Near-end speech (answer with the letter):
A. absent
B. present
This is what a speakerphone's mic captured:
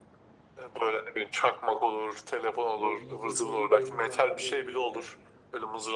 B